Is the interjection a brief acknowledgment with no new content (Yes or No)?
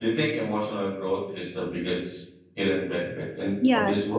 No